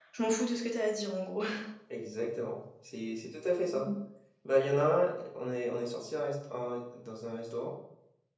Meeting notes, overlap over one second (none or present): none